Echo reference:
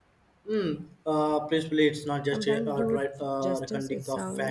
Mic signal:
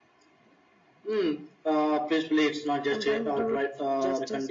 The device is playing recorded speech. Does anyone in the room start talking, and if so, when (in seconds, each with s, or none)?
none